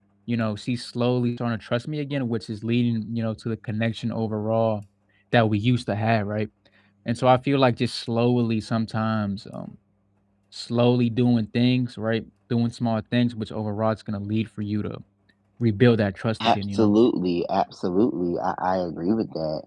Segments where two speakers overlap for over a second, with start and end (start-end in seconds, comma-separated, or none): none